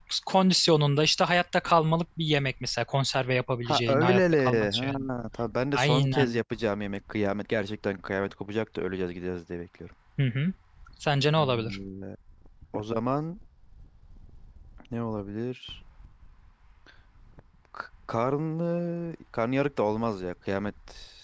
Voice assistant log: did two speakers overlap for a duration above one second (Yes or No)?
Yes